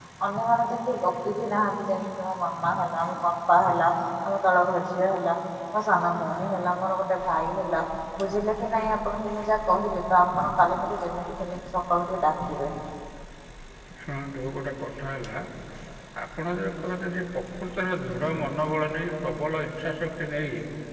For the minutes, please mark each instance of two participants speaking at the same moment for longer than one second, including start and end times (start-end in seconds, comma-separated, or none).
none